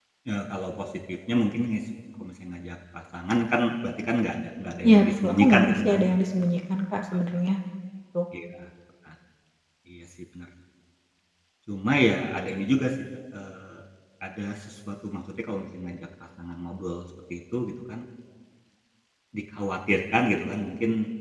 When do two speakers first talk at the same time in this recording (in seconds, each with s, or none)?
4.8 s